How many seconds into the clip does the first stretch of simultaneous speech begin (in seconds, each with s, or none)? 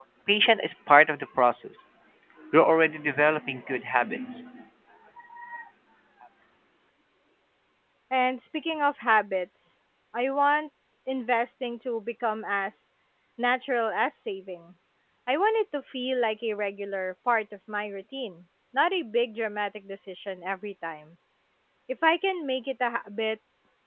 none